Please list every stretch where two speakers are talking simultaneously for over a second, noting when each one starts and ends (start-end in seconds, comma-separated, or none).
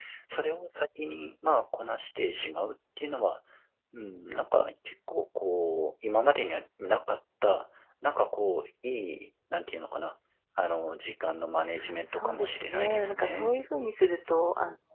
12.1-13.6